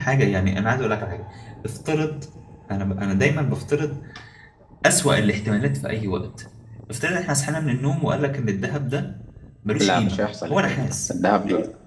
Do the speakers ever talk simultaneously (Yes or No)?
Yes